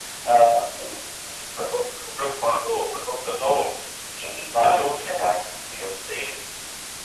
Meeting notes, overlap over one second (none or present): none